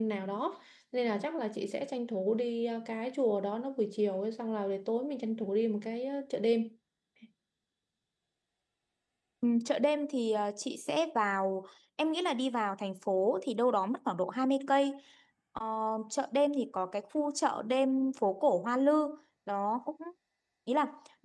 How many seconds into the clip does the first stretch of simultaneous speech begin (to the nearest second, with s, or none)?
none